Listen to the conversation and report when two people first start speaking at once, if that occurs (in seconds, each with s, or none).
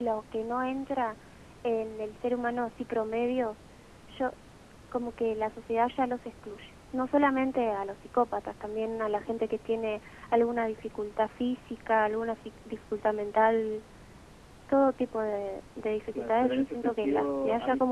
16.1 s